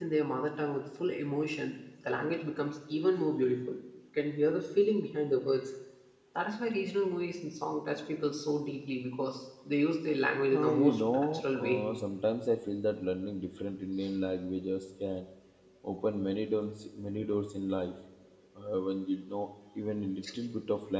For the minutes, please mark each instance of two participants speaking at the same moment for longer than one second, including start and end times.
10.5-11.8

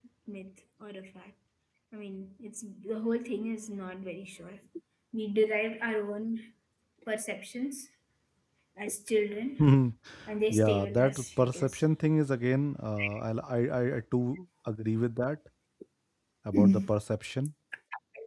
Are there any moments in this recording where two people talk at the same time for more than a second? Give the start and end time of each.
10.5-11.8

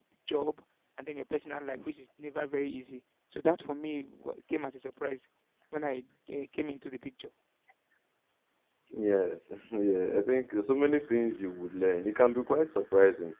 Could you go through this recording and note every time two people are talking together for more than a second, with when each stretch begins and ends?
none

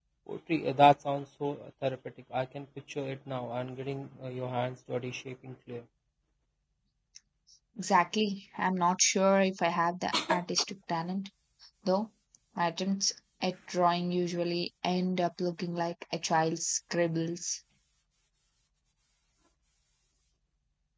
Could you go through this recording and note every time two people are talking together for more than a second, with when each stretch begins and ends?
none

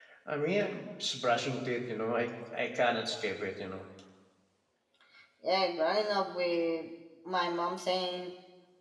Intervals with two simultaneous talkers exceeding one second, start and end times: none

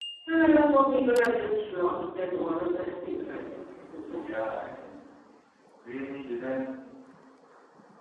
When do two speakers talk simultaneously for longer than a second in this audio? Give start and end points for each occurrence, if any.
none

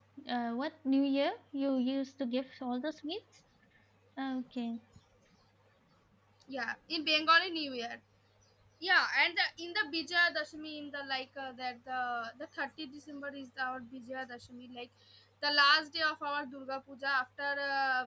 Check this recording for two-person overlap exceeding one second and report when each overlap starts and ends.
none

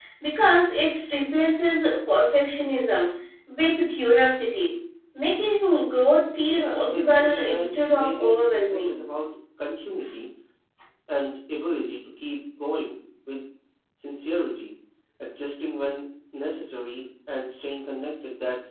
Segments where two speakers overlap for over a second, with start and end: 6.5-9.0

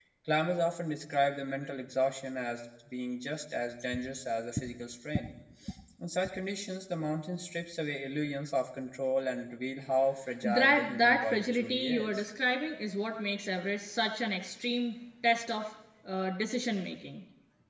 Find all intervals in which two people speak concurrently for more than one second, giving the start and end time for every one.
10.4-12.2

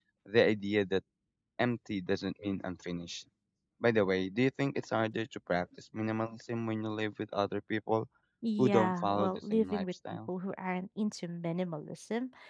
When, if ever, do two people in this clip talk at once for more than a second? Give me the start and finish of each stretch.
8.6-10.3

